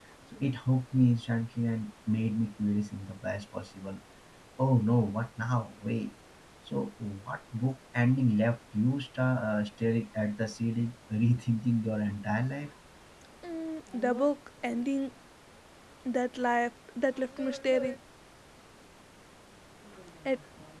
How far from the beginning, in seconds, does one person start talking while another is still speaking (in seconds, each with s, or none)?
none